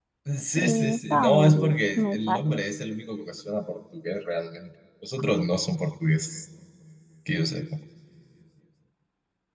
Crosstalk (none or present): present